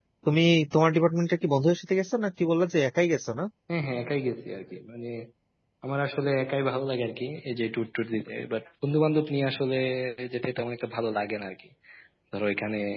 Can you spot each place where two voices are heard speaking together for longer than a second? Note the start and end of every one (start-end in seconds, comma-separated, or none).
none